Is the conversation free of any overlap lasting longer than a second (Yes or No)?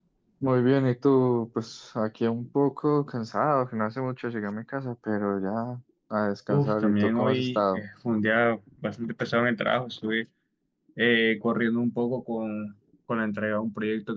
No